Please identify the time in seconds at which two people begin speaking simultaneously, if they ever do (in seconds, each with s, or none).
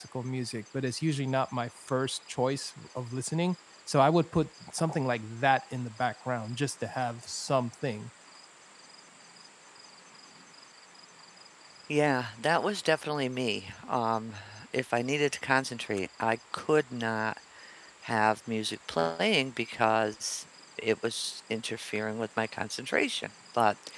none